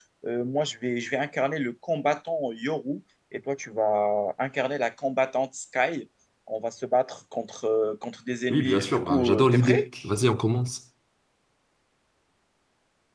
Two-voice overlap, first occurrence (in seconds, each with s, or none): 8.5 s